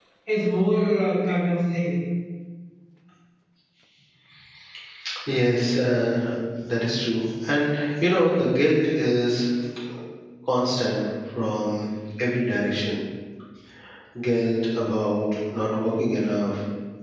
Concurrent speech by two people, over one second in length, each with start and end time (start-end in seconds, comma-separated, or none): none